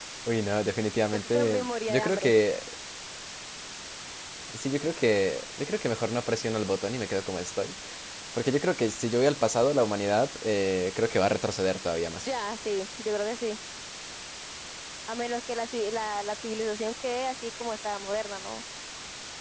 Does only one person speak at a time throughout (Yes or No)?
No